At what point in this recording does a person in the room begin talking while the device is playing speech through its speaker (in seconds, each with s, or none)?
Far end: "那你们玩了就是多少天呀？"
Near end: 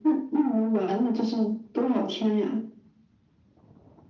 none